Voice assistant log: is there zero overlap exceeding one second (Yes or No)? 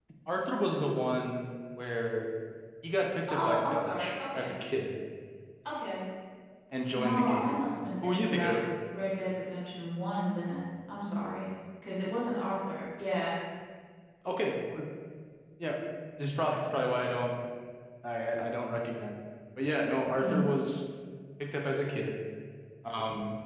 No